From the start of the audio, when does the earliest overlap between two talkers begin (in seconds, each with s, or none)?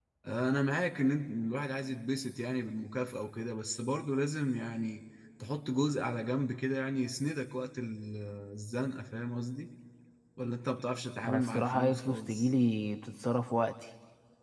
11.2 s